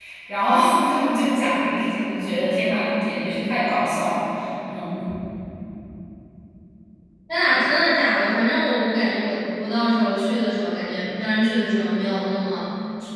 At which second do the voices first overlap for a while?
none

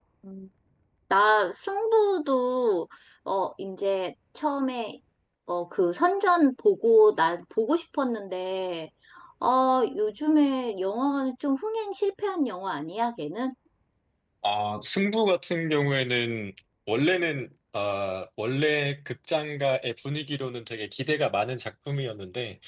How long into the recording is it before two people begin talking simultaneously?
none

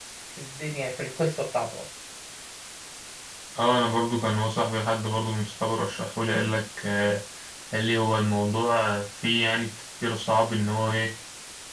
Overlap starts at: none

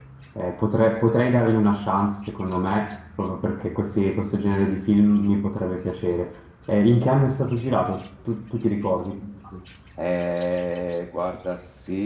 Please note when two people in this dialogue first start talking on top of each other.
none

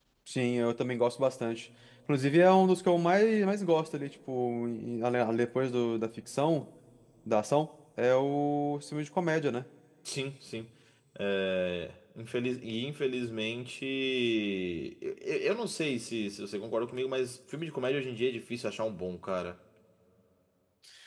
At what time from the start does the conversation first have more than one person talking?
none

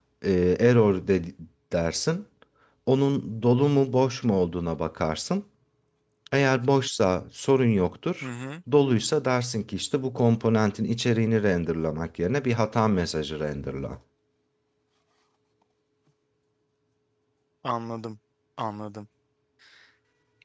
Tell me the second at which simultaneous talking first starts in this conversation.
none

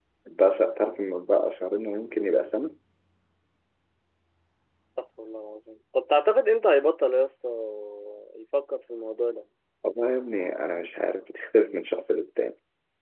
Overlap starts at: none

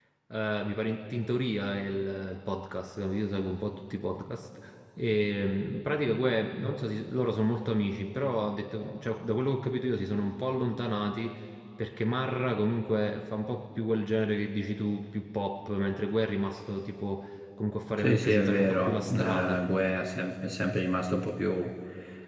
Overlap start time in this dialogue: 18.0 s

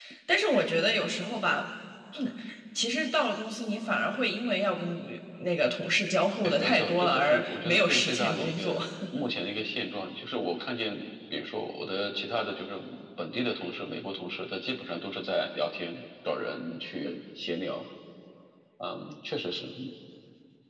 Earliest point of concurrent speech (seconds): 6.4 s

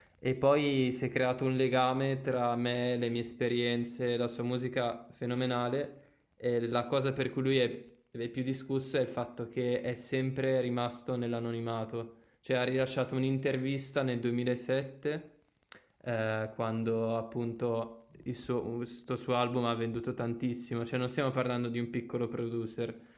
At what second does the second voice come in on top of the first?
none

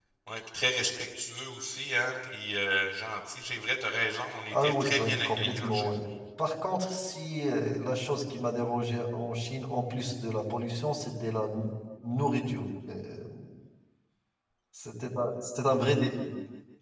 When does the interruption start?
4.5 s

